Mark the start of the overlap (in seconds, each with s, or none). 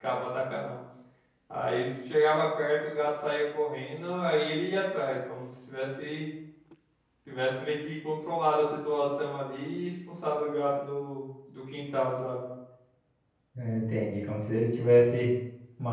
none